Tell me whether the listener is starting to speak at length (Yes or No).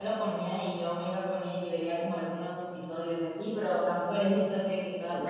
Yes